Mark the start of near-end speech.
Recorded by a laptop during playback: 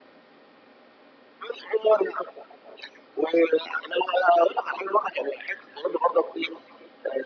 none

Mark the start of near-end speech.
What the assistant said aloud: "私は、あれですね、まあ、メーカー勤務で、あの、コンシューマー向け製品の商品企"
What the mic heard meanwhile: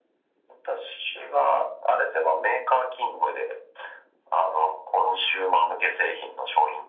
none

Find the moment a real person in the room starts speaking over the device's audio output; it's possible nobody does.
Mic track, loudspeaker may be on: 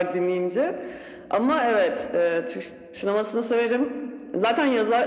none

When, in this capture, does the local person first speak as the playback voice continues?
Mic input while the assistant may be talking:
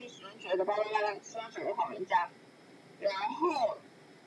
none

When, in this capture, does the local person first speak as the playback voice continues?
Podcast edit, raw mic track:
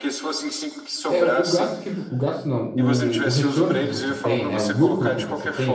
1.1 s

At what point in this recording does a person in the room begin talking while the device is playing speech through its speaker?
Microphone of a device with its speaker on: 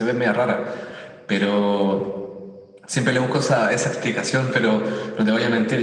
none

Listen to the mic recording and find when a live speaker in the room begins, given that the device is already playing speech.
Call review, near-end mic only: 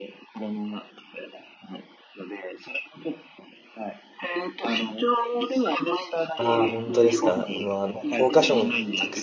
6.4 s

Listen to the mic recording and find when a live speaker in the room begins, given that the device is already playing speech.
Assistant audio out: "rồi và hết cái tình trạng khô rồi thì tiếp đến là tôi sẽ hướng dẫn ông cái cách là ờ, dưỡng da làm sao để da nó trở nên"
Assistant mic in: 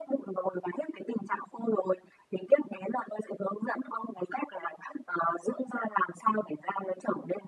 none

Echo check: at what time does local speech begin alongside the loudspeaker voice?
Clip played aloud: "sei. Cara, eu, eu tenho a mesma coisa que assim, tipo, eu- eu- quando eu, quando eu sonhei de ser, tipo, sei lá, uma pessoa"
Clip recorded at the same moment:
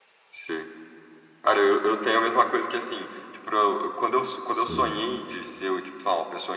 4.4 s

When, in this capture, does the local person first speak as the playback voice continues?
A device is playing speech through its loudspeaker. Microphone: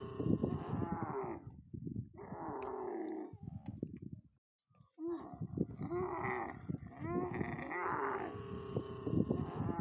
none

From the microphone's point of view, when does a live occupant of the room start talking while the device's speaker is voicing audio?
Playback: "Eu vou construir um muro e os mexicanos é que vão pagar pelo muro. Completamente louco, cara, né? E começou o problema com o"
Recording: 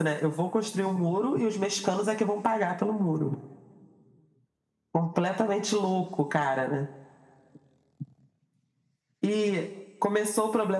none

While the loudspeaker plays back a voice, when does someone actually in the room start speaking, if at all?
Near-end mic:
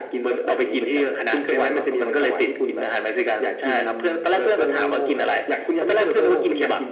none

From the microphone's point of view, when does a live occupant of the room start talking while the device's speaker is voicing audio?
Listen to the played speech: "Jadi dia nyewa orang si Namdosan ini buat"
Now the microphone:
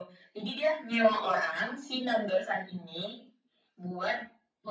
none

